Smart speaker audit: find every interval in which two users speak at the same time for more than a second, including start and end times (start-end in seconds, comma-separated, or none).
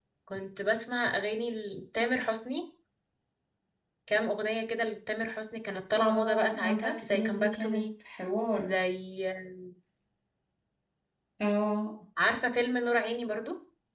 6.0-7.9